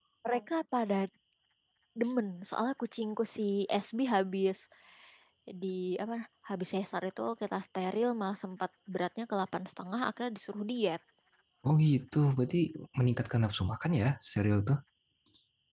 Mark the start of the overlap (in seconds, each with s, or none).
none